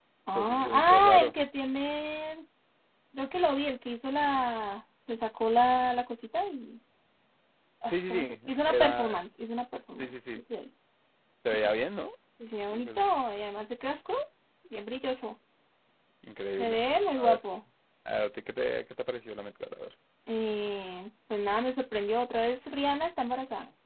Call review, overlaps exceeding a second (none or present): present